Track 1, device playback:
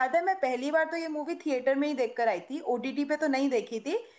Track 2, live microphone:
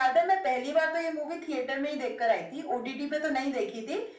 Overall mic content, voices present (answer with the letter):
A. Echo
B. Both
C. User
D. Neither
A